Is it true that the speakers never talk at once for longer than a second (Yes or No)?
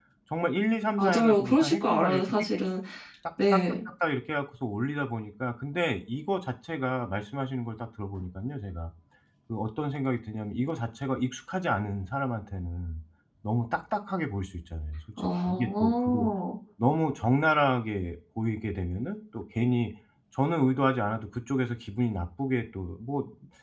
No